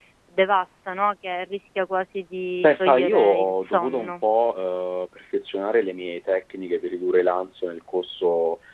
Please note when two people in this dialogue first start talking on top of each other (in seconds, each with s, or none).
2.6 s